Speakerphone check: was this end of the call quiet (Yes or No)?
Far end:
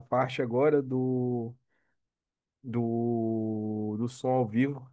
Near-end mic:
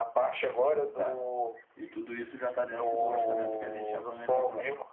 No